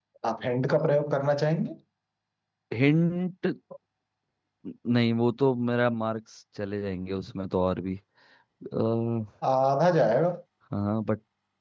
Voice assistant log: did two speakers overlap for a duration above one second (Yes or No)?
No